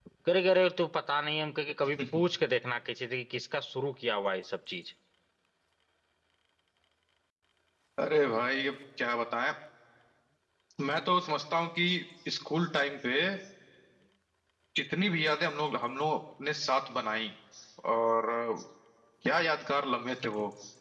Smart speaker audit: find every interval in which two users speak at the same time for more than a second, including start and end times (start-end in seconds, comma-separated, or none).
none